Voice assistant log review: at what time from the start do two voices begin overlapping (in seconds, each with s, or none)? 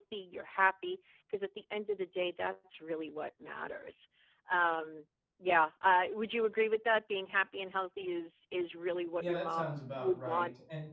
9.2 s